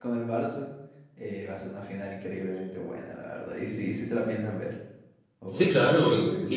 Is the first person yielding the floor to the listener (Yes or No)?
Yes